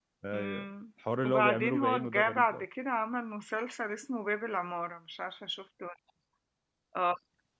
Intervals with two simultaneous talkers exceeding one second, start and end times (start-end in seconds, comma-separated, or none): 1.2-2.5